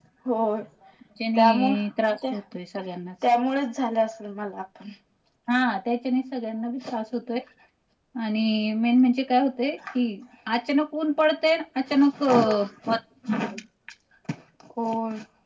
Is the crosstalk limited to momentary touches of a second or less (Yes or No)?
Yes